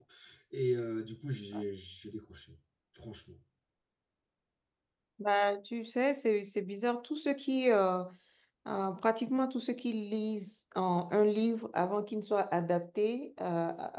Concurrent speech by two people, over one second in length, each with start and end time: none

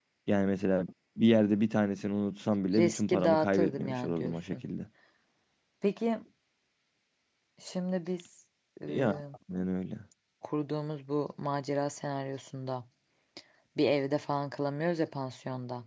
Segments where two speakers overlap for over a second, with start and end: 2.8-4.6

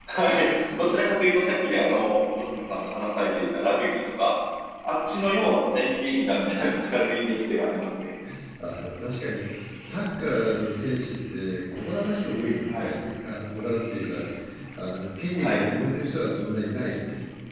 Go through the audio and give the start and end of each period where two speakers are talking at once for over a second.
none

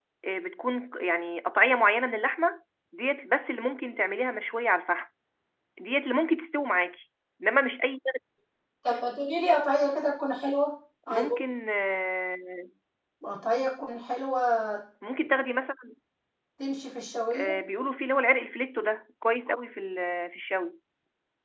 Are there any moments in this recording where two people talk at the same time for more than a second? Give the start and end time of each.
none

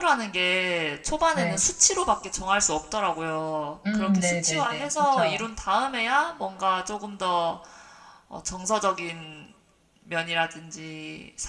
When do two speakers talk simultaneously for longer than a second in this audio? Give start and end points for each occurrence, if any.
3.9-5.4

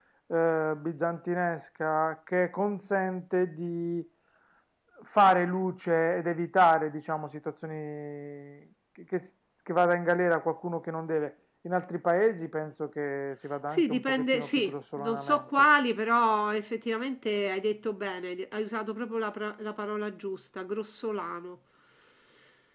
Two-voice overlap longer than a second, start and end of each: 13.7-15.4

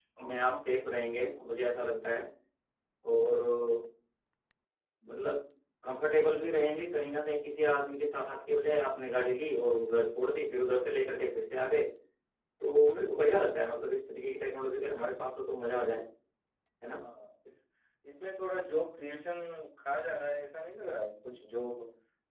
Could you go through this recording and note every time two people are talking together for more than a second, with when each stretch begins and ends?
none

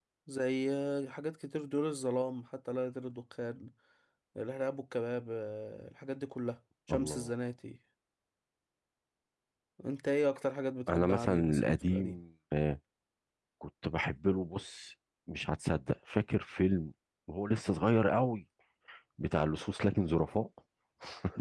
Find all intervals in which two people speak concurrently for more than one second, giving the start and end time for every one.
10.9-12.2

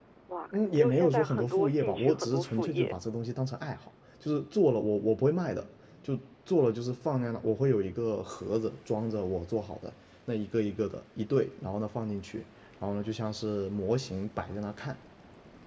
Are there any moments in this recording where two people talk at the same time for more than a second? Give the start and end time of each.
0.5-3.0

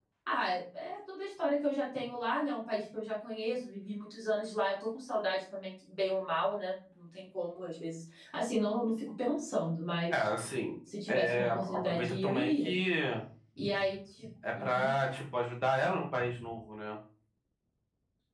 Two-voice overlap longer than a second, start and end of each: 11.1-12.7

